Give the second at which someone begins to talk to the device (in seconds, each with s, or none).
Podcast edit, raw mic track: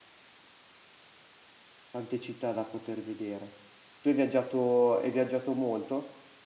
1.9 s